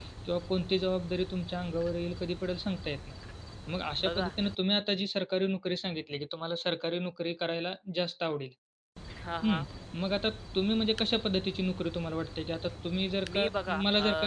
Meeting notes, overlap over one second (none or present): none